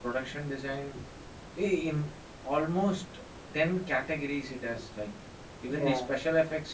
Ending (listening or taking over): listening